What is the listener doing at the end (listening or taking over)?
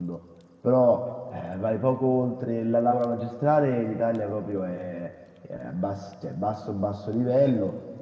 listening